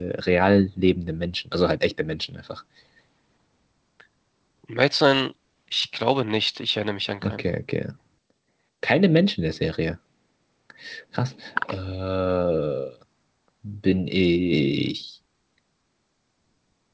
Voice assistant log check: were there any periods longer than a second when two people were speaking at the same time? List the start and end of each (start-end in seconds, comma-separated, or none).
none